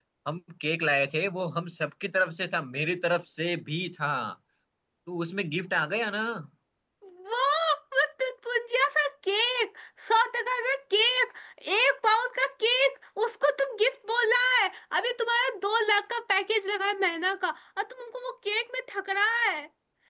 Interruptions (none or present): none